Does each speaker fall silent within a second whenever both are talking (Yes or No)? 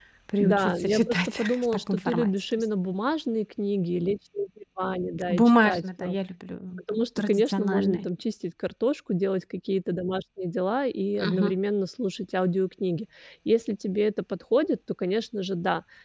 No